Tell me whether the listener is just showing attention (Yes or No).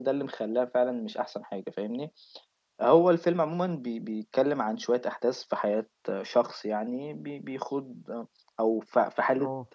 Yes